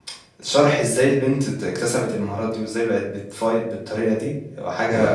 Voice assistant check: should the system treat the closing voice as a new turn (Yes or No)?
No